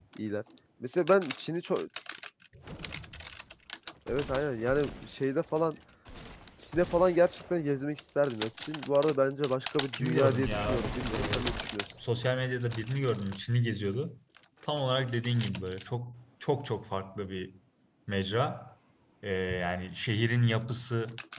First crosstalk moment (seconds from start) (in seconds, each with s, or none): 9.9 s